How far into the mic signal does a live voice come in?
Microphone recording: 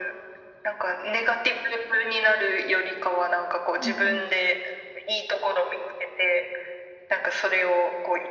3.8 s

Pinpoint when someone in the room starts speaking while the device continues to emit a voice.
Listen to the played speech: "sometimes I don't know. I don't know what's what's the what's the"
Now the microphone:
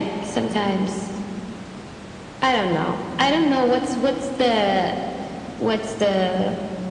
none

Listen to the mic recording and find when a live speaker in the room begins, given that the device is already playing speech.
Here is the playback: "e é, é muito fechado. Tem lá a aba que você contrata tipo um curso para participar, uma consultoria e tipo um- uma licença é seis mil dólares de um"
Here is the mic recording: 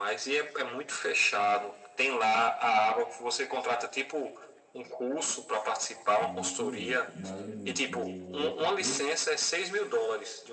6.2 s

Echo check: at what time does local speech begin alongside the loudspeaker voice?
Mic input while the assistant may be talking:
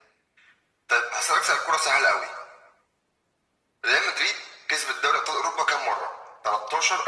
none

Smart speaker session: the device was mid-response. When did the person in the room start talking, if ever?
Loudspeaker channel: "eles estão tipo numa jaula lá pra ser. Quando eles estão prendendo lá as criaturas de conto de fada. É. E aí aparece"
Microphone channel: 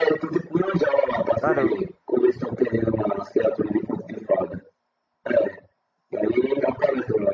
1.4 s

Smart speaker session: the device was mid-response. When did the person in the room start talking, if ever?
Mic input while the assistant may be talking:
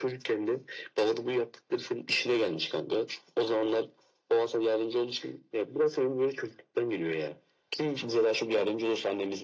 none

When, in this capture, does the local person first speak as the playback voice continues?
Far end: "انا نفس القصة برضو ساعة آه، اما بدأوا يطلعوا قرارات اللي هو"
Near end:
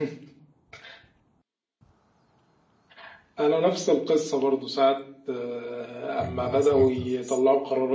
6.2 s

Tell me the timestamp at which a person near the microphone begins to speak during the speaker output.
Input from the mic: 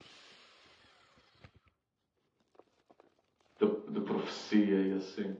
3.6 s

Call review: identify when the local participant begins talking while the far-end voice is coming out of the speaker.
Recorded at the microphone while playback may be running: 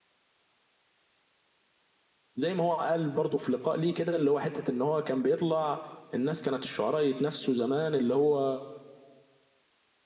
2.4 s

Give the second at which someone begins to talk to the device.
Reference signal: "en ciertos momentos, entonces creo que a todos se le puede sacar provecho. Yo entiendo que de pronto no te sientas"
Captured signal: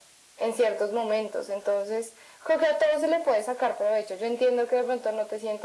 none

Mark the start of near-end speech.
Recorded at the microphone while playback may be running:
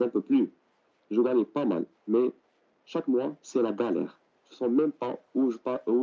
none

